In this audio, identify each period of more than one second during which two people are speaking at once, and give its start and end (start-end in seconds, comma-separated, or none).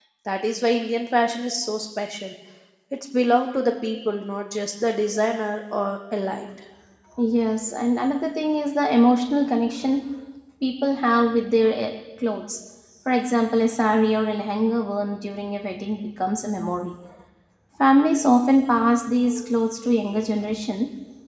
none